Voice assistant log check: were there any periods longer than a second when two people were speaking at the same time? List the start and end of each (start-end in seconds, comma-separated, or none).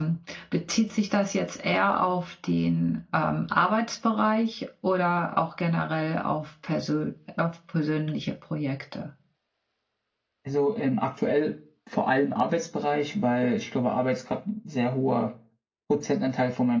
none